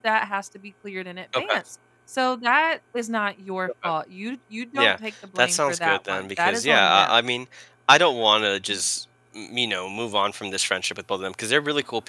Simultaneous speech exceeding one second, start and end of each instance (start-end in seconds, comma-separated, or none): 5.3-7.2